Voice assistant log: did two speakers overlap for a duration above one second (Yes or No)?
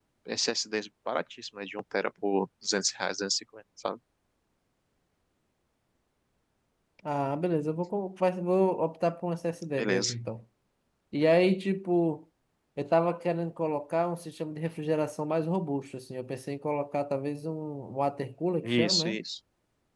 No